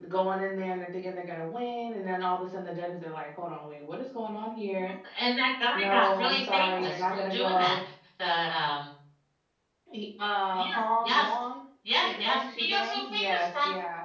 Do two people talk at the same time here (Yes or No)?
Yes